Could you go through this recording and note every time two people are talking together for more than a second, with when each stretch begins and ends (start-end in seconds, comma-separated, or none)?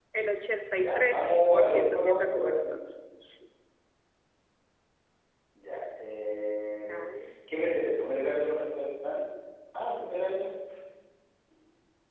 0.8-2.7